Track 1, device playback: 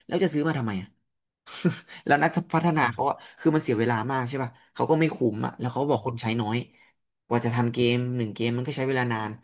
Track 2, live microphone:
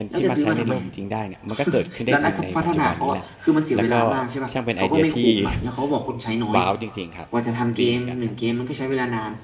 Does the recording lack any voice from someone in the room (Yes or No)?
No